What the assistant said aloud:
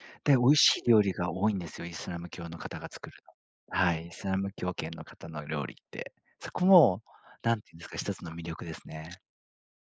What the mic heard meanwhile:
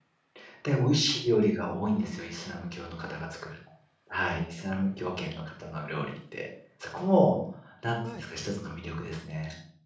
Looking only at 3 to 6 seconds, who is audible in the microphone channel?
echo only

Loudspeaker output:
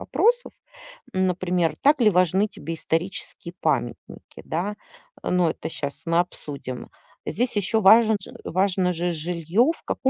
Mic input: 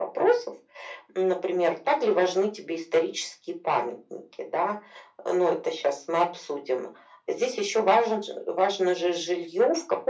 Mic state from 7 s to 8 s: echo only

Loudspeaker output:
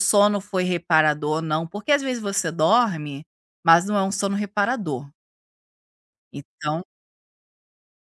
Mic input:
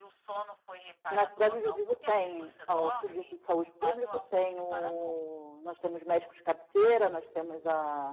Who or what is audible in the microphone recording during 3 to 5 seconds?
both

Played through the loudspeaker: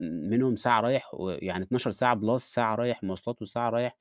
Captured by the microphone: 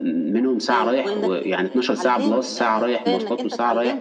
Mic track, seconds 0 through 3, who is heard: both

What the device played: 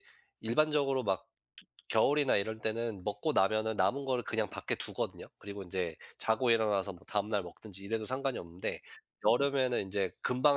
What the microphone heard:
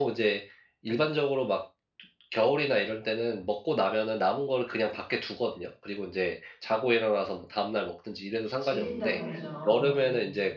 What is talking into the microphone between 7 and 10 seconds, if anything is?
both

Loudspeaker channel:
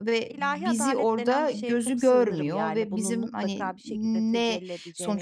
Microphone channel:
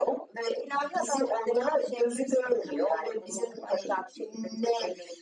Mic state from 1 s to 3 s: echo only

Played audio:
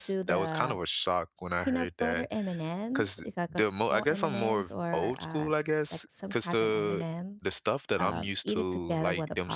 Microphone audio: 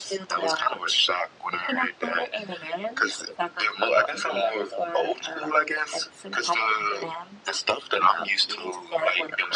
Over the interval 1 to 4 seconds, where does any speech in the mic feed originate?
echo only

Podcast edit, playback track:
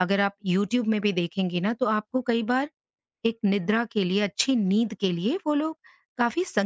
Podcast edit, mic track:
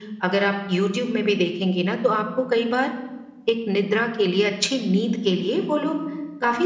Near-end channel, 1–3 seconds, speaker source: echo only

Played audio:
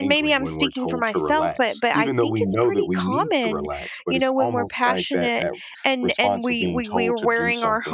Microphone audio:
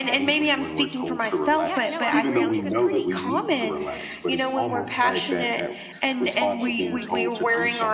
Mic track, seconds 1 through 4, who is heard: both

